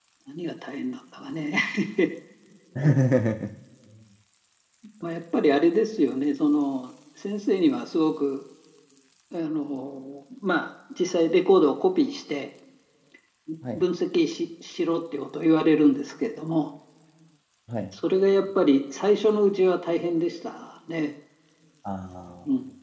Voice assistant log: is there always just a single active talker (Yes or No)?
Yes